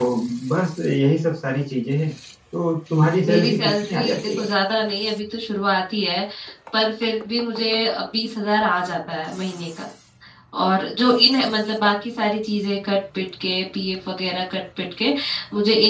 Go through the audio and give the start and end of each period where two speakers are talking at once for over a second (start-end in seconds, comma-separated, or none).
3.2-4.5